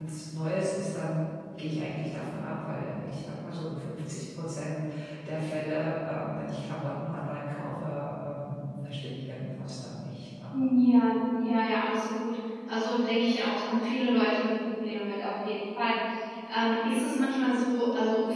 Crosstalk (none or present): none